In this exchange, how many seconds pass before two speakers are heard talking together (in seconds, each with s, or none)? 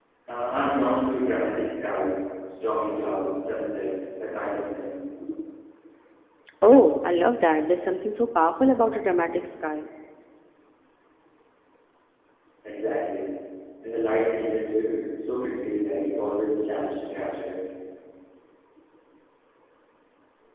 none